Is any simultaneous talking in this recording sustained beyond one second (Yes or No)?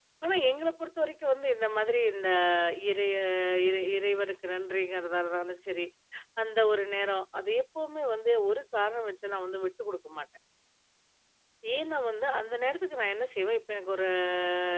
No